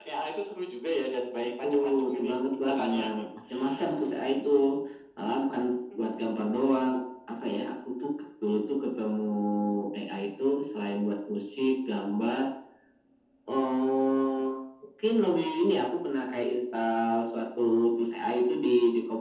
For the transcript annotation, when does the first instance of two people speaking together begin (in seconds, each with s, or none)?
1.4 s